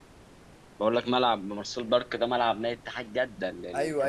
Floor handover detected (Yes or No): Yes